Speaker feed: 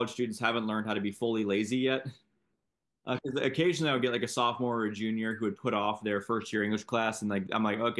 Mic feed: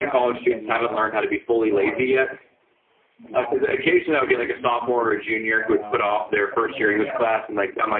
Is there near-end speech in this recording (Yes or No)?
Yes